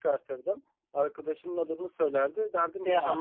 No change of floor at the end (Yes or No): Yes